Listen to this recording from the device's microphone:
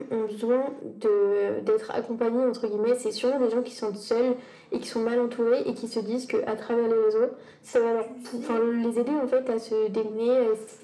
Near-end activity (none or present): present